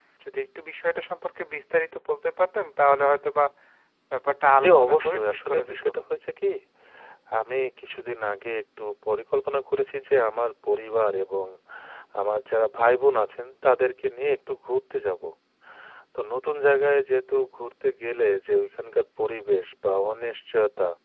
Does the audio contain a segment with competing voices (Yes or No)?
Yes